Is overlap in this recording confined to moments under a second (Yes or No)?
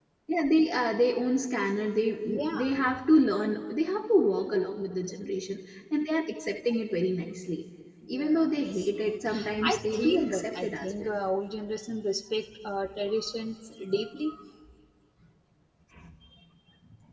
No